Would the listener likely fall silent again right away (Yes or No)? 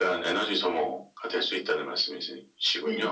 No